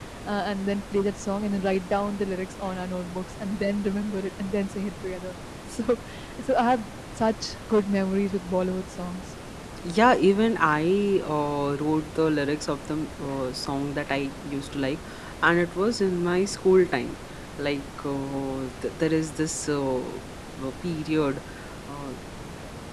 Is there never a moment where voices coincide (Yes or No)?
Yes